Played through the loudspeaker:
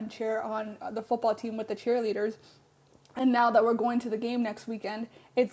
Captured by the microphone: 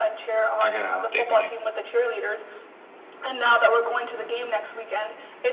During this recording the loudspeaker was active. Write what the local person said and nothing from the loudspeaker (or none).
I gotta update my.